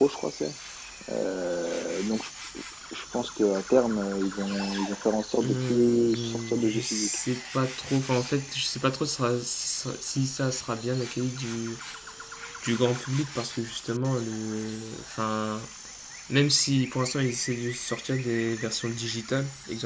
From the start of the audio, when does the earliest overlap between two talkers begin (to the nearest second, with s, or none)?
5 s